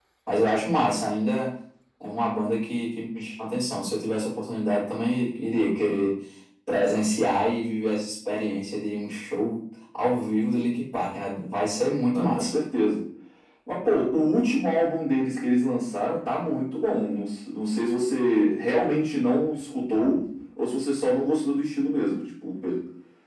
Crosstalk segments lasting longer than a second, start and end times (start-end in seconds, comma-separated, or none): none